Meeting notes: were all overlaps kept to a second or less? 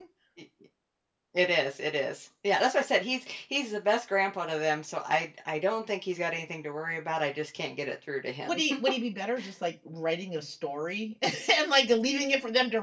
Yes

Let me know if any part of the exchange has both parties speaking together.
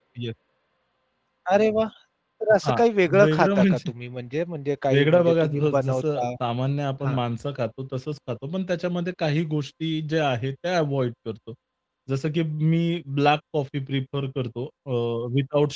Yes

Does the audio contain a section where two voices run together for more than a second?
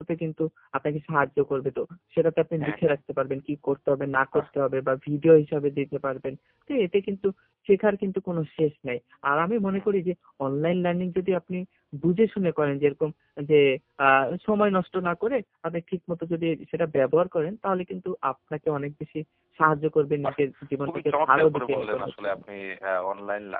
Yes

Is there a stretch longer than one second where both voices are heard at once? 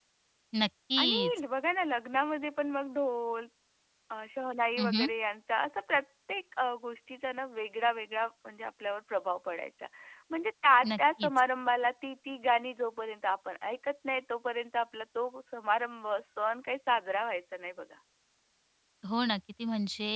No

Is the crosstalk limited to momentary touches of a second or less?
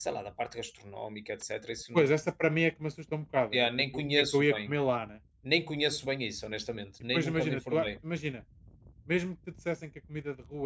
No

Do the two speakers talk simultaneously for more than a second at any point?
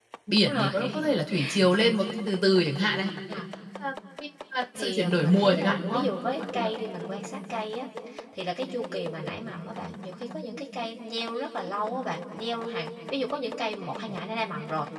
Yes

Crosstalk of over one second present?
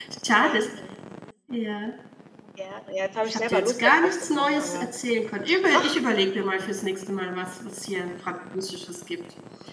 Yes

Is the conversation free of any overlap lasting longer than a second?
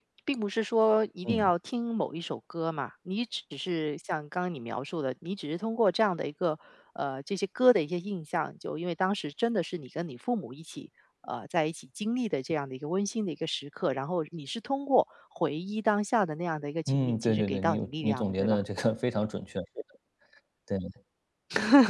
No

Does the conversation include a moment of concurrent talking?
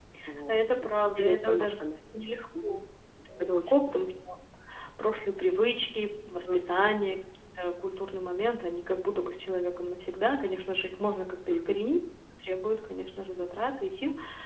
Yes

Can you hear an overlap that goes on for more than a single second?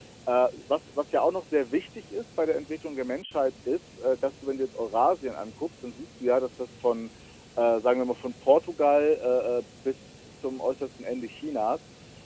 No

